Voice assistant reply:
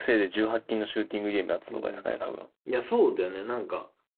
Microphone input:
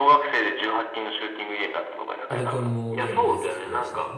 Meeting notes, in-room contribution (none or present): present